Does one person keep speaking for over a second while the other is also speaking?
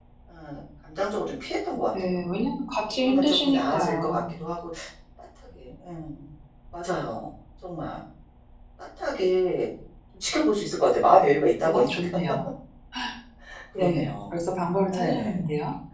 Yes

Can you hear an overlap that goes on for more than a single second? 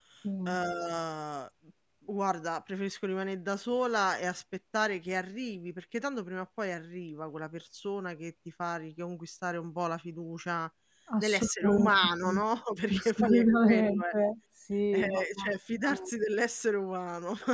Yes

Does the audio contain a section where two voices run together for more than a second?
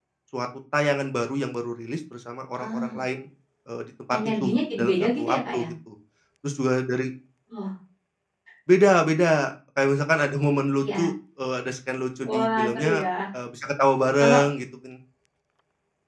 Yes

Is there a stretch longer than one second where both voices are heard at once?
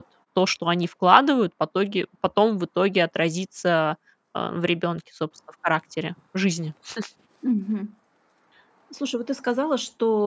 No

